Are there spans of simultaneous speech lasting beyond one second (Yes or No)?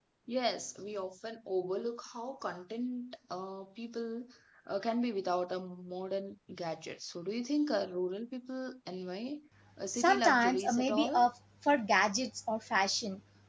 Yes